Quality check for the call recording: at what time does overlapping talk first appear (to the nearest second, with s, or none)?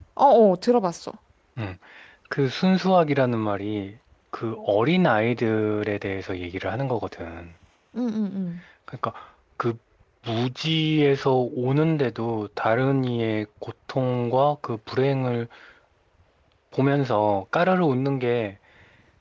none